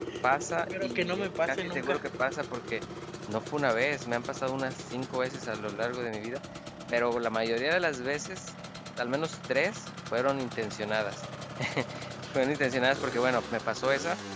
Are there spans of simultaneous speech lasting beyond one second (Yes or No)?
Yes